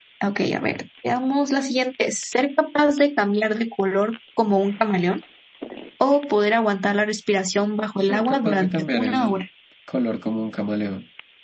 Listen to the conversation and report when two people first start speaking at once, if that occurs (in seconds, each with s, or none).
8.0 s